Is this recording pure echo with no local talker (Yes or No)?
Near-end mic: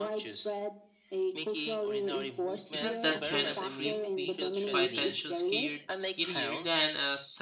No